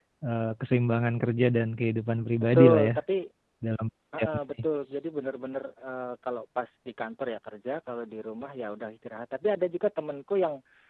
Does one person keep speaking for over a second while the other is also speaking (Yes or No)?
No